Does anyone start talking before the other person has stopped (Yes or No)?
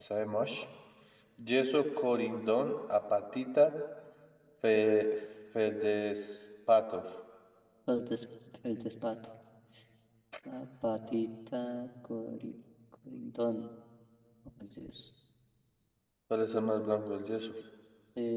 No